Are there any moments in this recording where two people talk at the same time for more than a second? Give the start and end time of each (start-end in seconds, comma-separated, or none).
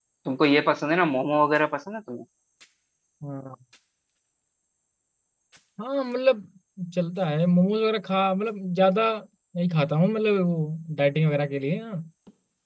none